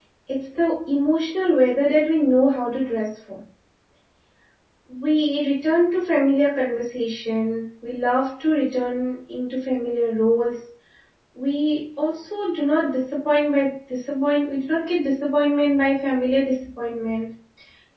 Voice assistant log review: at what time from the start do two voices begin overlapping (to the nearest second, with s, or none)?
none